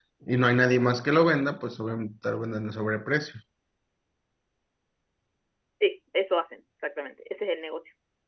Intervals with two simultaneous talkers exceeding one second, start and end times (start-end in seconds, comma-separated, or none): none